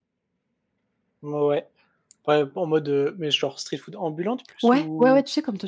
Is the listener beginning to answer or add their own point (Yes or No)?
Yes